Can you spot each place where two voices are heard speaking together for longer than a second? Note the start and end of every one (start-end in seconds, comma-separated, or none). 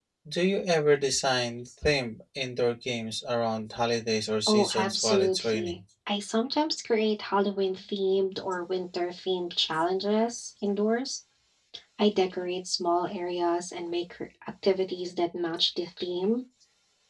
4.5-5.8